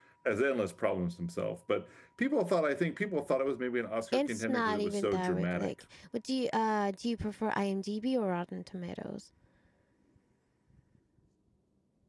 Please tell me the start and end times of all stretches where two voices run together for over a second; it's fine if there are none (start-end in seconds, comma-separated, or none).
4.1-5.7